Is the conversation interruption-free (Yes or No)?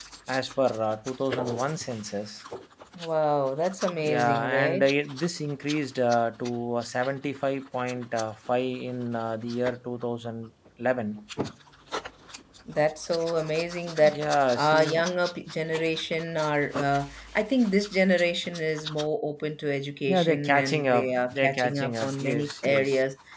No